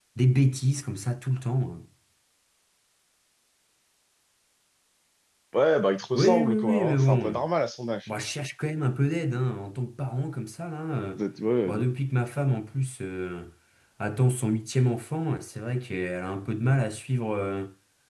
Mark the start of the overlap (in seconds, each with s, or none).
6.2 s